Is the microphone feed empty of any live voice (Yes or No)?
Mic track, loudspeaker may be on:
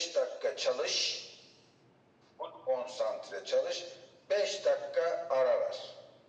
Yes